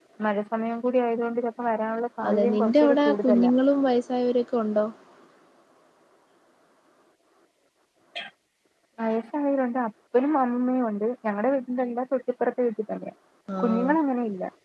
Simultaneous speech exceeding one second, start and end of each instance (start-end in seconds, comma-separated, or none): 2.3-3.5